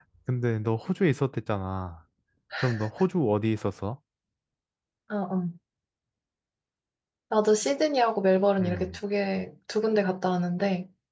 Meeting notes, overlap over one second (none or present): none